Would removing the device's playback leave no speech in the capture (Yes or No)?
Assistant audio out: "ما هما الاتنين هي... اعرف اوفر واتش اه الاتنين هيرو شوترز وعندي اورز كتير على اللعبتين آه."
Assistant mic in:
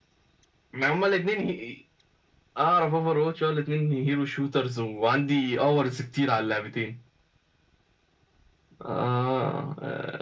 Yes